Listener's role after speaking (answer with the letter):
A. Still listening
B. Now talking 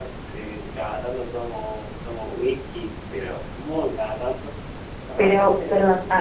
B